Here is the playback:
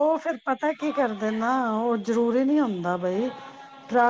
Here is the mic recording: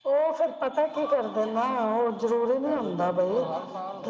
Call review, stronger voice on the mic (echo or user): echo